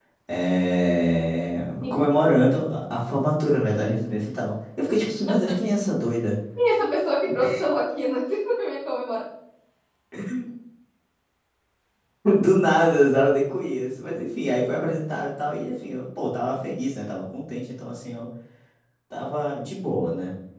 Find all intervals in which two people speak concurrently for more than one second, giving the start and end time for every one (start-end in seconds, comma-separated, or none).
none